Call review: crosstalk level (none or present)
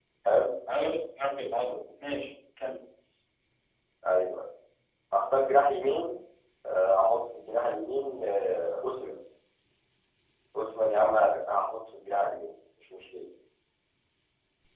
none